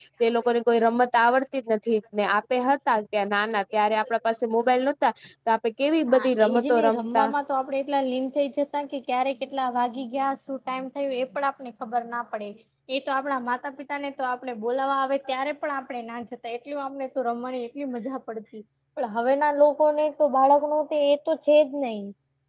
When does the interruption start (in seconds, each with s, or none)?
6.1 s